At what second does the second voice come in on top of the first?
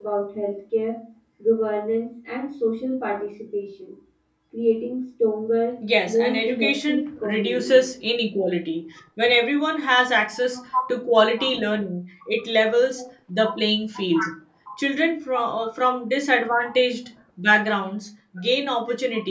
5.8 s

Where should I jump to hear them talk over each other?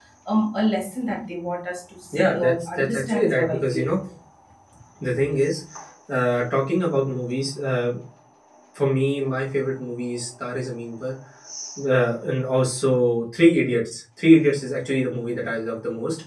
2.1 s

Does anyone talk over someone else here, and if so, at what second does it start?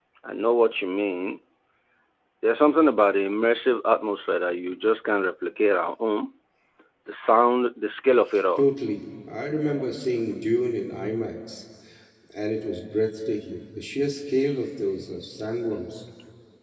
none

